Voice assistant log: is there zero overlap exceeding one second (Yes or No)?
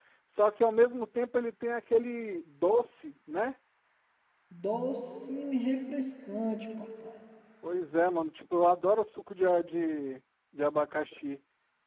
Yes